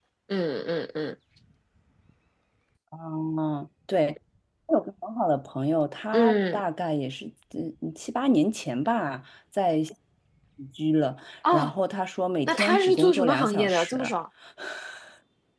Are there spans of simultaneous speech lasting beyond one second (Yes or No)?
Yes